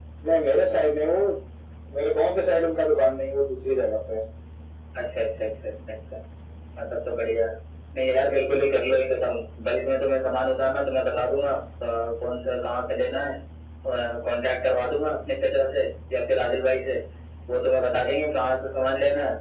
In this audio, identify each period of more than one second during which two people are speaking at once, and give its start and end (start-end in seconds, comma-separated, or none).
none